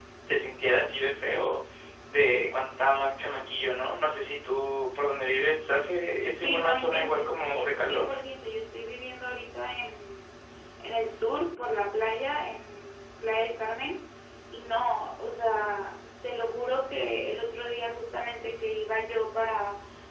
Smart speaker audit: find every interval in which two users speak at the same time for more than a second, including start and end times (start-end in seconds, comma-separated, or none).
6.4-8.1